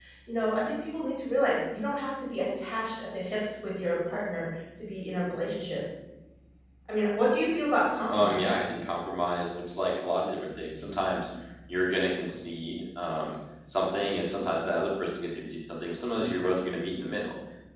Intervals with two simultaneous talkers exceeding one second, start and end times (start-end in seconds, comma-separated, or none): none